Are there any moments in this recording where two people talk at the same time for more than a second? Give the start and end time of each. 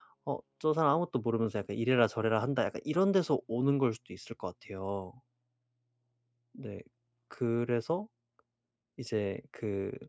none

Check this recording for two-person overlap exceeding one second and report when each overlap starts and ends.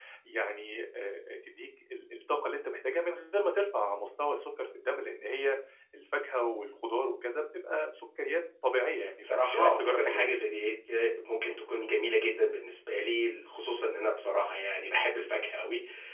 9.2-10.5

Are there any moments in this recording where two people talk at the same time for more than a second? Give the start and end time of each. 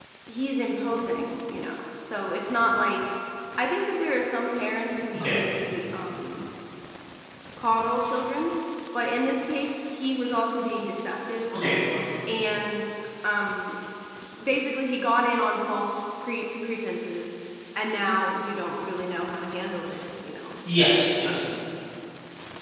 none

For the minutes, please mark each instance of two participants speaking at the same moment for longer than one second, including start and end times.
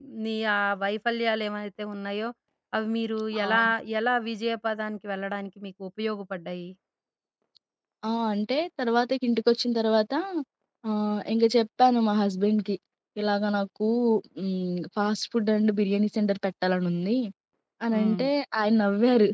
none

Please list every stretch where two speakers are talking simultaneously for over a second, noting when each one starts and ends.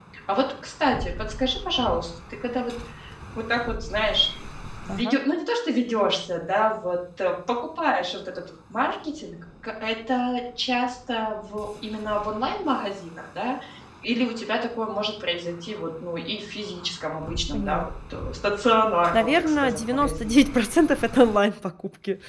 19.1-20.5

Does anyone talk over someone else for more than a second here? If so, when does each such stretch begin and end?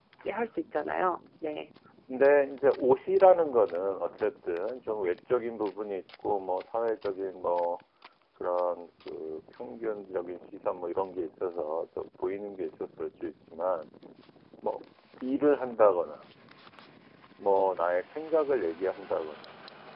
none

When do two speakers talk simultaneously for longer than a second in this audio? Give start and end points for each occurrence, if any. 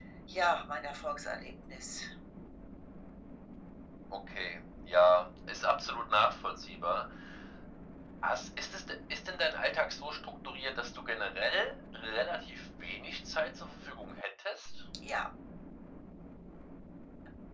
none

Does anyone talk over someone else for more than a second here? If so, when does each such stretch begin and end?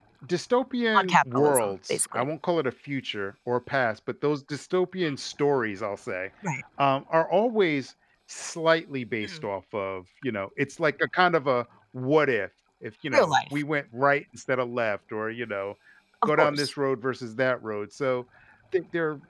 1.0-2.2

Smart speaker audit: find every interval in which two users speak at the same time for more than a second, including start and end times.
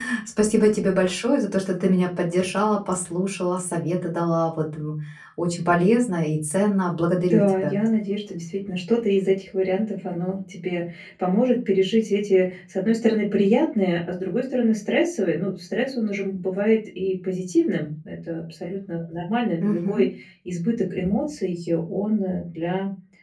none

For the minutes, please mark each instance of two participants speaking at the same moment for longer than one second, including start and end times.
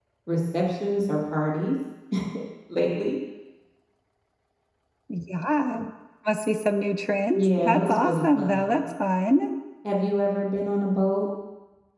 7.3-8.8

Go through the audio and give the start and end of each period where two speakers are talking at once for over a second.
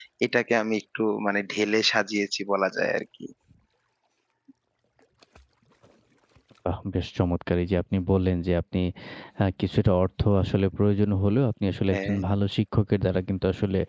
none

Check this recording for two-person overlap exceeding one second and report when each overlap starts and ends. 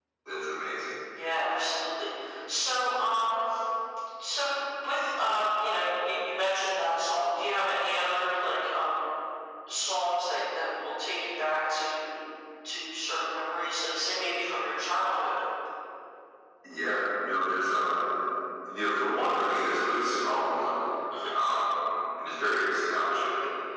none

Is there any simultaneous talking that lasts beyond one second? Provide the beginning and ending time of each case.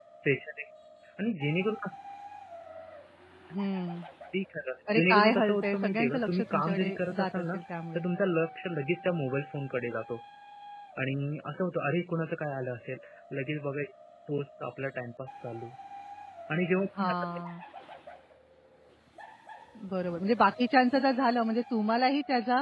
4.9-7.6

